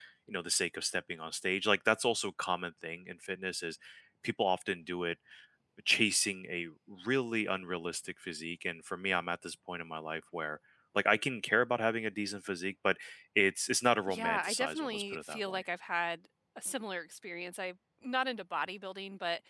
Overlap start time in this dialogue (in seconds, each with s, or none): 14.1 s